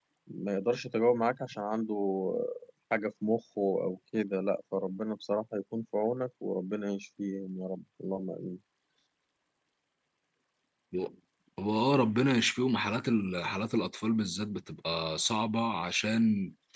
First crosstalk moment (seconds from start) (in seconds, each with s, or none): none